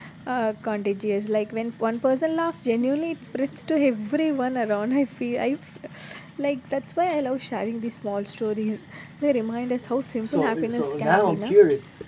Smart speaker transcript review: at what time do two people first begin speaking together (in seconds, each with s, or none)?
10.2 s